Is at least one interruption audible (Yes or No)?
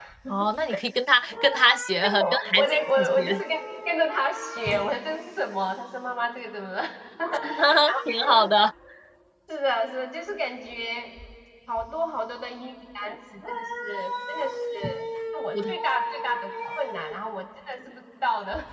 Yes